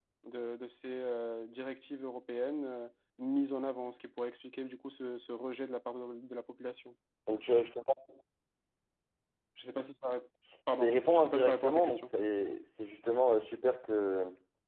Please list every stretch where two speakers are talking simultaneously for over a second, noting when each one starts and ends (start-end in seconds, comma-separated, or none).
10.7-12.1